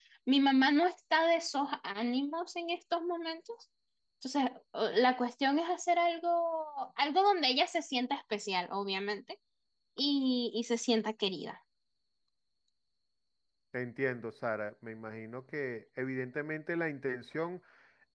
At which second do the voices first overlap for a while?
none

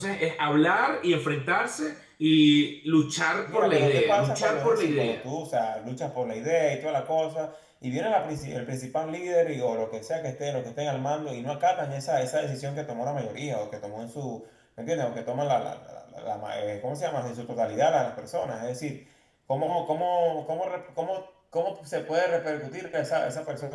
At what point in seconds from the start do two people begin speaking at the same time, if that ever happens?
3 s

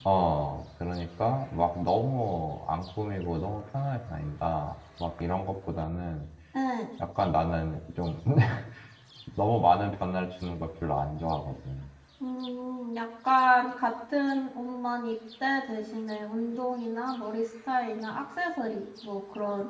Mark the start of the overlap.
none

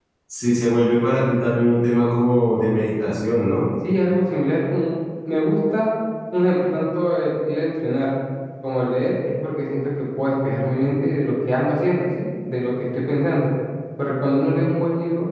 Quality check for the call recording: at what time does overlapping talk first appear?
none

